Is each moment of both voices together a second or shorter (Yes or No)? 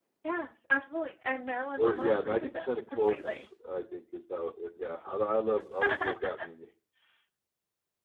No